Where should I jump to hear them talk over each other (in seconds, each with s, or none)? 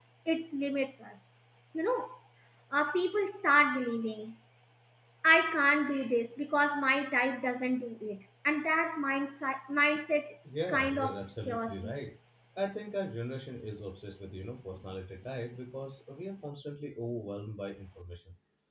10.7 s